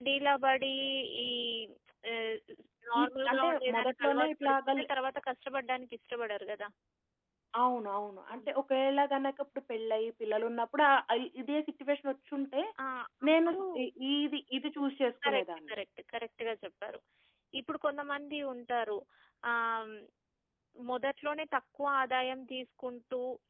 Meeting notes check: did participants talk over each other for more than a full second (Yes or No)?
Yes